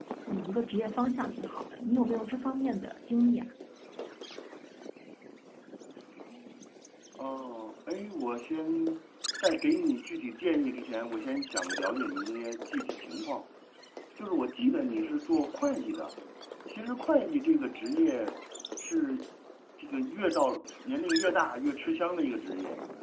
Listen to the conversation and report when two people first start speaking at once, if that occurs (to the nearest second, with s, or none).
none